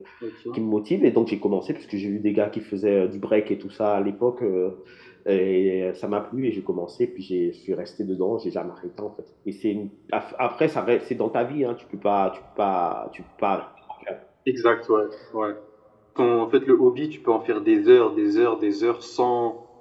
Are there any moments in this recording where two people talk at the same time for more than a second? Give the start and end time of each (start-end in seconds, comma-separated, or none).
none